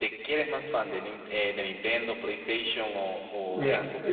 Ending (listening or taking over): taking over